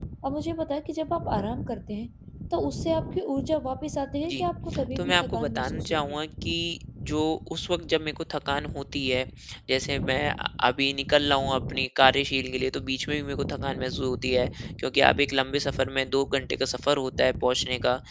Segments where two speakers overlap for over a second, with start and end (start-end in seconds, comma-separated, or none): 5.0-6.3